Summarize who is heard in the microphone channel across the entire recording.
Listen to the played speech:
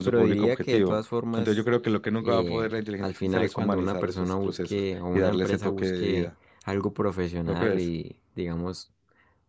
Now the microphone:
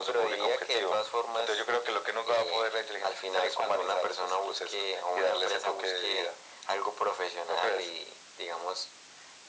echo only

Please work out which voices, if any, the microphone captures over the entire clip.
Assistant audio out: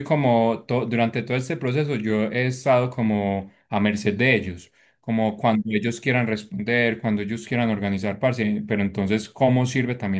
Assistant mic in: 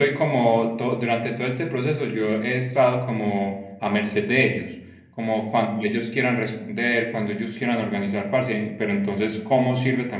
echo only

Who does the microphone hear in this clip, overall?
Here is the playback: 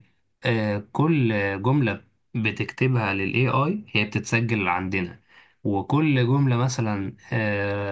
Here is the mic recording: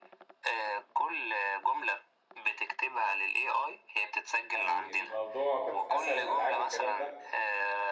both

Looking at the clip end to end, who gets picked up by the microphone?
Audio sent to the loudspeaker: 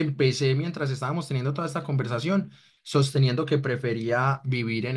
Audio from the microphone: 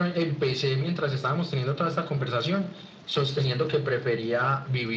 echo only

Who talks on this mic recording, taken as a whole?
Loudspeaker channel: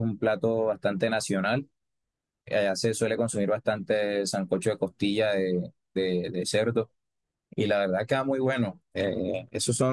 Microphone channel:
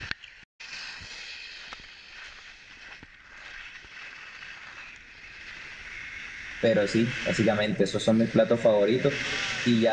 user only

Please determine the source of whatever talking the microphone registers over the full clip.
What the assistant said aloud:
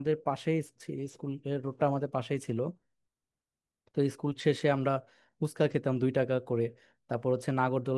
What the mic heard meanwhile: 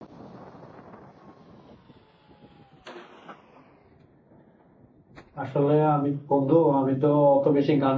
user only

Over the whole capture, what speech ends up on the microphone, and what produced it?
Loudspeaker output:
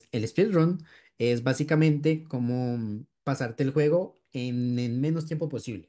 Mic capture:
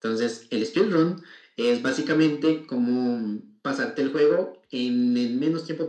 echo only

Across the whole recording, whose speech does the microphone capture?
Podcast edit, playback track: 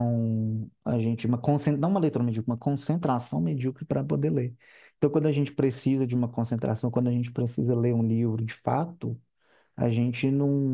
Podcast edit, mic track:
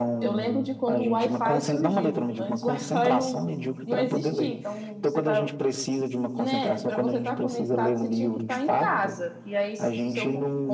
both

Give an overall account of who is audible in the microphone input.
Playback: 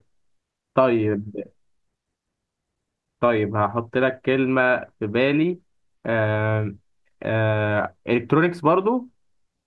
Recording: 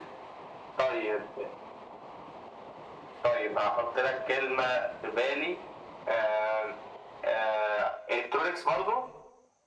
echo only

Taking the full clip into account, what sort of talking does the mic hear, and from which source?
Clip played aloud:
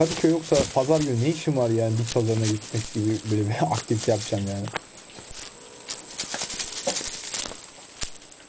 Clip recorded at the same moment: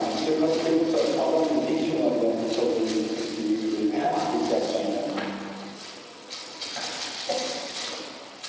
echo only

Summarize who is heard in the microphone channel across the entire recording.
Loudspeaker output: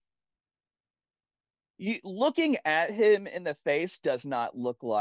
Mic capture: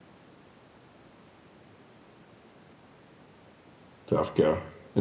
user only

